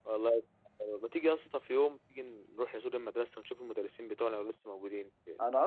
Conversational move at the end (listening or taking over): taking over